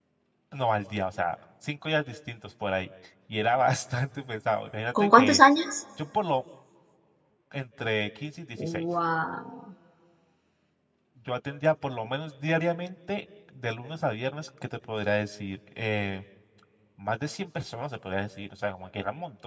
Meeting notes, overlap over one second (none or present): none